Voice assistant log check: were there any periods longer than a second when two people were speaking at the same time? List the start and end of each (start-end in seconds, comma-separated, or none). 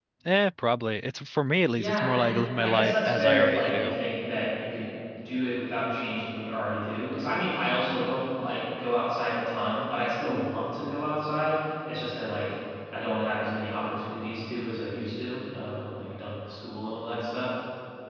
1.8-4.0